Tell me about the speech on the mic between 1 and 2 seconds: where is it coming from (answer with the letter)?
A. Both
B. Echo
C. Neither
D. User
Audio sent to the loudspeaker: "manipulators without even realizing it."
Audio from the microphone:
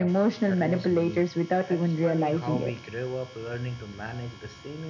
A